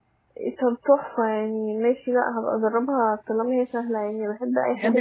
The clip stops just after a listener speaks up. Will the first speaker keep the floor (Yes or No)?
No